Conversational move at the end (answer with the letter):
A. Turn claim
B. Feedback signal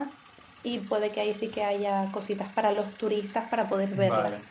A